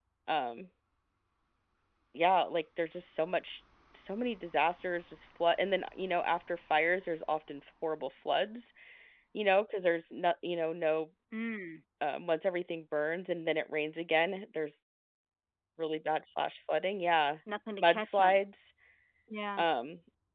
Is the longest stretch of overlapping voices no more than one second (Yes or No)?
Yes